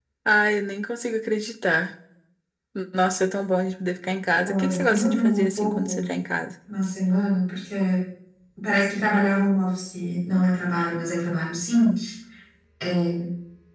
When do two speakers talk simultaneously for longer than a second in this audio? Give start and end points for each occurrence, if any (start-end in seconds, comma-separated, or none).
4.5-6.0